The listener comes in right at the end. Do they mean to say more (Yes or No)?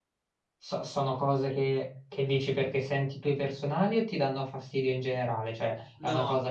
No